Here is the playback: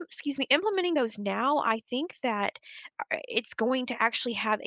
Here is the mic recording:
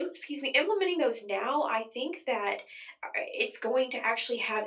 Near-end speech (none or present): none